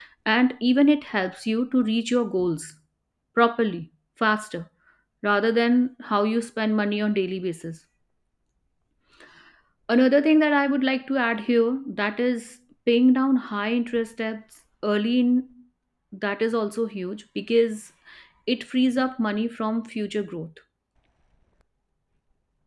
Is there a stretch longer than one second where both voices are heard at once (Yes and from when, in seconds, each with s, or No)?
No